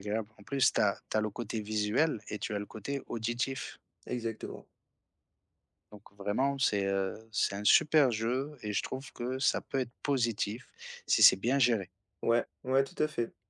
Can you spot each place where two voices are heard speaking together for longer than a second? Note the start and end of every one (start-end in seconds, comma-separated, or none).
none